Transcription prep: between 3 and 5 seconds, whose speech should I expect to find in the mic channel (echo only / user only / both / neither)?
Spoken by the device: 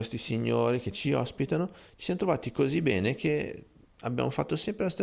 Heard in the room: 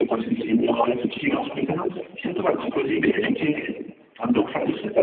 echo only